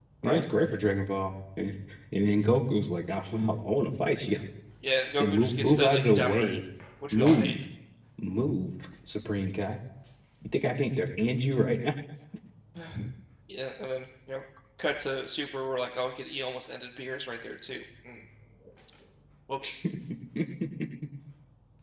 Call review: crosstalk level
present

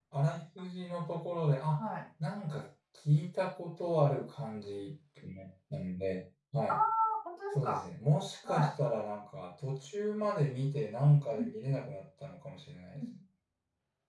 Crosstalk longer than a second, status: none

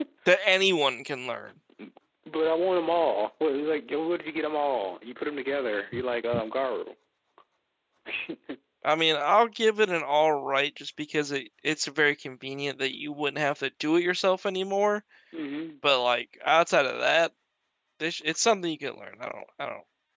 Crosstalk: none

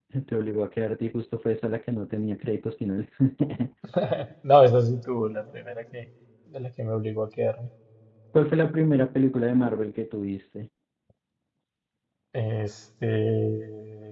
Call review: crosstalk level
none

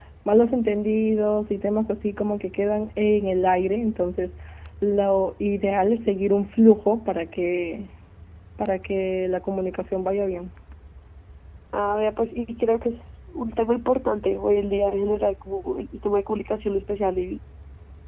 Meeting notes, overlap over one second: none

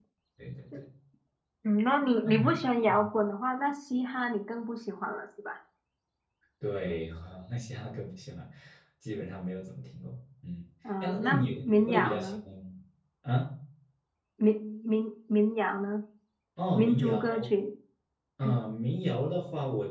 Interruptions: present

